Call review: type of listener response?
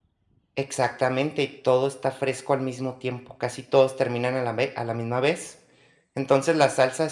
listening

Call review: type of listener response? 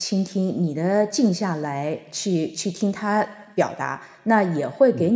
listening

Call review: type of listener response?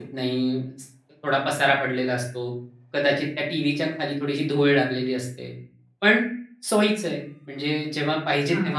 listening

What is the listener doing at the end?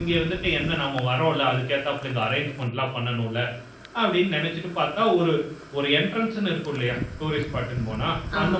listening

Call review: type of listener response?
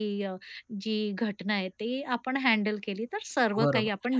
taking over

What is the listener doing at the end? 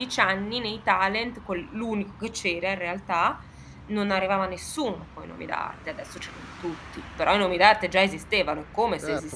taking over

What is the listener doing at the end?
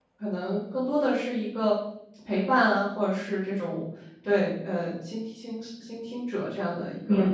taking over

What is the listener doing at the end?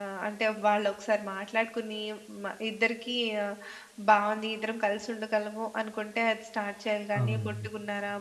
listening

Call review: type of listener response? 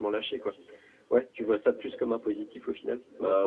taking over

